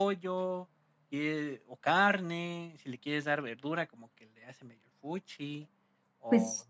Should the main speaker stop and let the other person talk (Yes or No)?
No